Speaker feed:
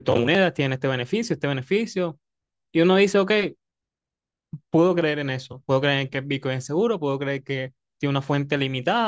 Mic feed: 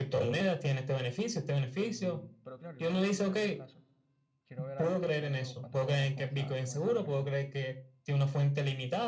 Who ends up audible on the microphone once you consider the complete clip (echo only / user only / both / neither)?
both